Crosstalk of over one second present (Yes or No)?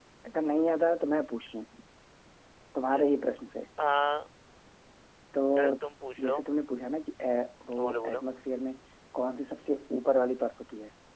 No